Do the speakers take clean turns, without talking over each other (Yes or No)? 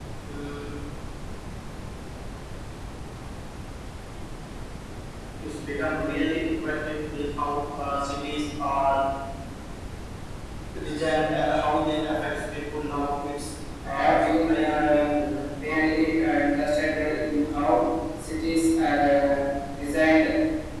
No